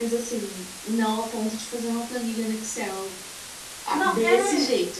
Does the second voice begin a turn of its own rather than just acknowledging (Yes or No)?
No